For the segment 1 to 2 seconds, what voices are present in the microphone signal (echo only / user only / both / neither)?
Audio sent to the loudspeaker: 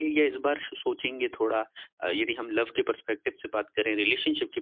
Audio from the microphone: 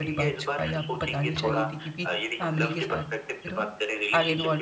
both